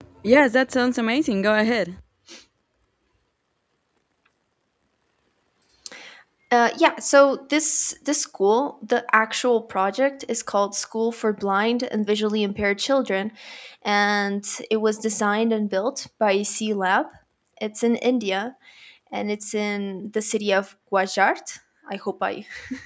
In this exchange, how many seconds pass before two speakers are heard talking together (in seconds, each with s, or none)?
none